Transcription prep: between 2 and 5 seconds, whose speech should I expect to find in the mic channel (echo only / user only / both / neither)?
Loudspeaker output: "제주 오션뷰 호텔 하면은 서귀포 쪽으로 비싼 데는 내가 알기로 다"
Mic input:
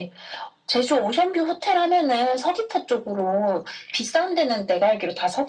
echo only